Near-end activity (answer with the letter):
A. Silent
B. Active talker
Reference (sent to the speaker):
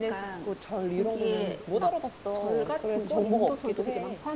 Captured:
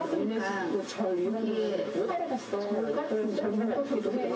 A